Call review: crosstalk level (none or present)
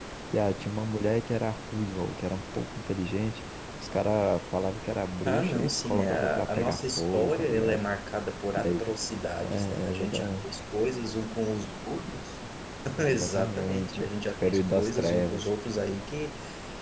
present